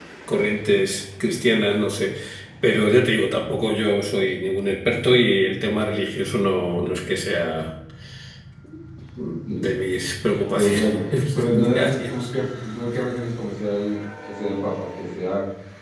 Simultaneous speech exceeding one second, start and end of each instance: 10.5-12.3

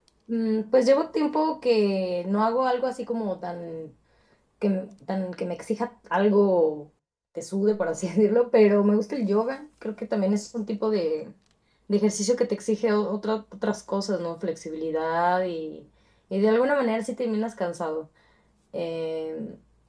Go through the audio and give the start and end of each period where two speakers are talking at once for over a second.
none

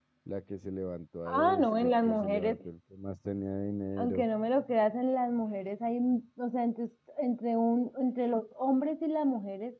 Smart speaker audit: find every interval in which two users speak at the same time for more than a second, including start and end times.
1.2-2.6

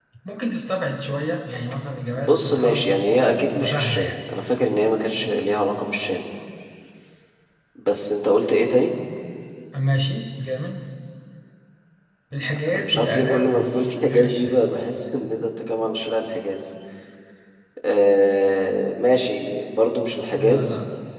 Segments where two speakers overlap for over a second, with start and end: 2.1-4.1, 12.6-14.6

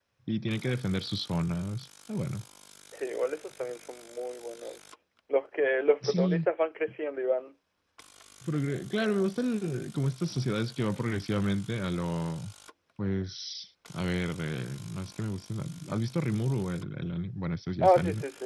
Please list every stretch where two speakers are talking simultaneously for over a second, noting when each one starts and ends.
none

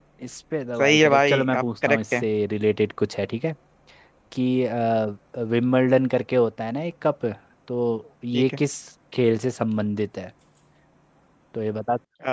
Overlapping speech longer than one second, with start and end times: 0.8-2.2

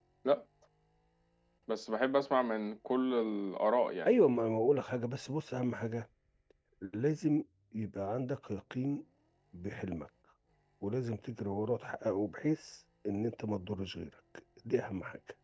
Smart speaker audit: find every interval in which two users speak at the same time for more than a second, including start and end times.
none

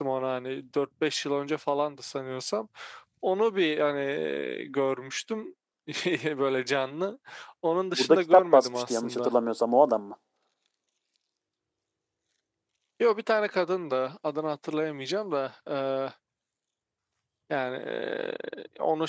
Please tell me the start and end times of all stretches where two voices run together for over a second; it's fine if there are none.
7.9-9.3

